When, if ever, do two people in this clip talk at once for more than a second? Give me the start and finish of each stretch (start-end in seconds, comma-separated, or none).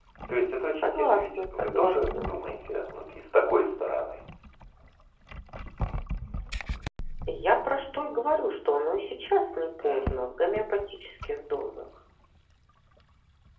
0.8-2.3